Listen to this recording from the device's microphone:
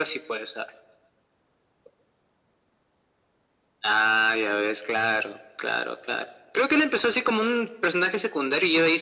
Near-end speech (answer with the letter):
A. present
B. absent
B